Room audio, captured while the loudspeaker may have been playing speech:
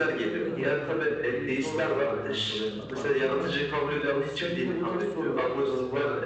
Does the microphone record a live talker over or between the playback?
Yes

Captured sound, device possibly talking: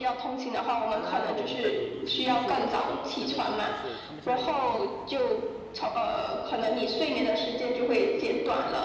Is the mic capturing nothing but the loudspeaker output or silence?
No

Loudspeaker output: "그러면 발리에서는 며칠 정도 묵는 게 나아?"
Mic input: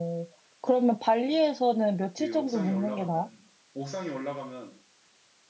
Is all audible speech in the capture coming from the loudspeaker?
No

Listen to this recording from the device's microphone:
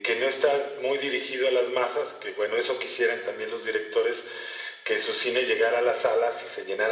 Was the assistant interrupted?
No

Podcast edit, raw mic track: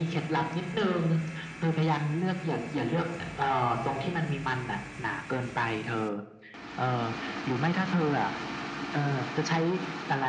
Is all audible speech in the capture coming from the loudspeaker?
Yes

